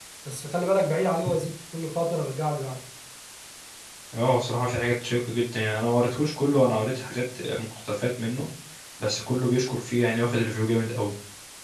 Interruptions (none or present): none